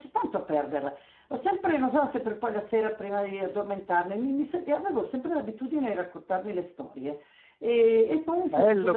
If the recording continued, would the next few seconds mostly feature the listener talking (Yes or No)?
No